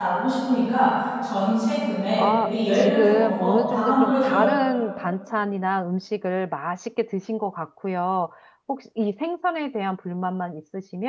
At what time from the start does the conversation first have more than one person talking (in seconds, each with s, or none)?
2.2 s